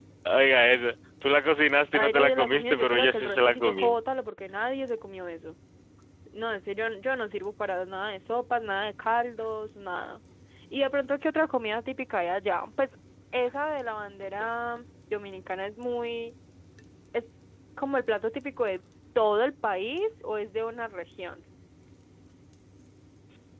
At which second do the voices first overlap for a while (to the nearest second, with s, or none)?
2 s